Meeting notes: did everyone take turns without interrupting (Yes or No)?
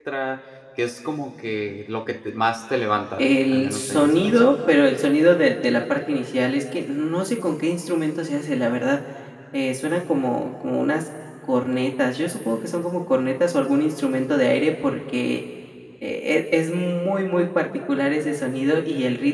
No